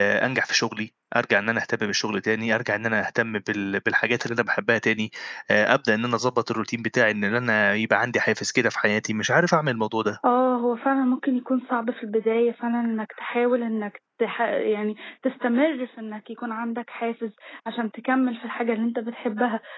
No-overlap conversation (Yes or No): Yes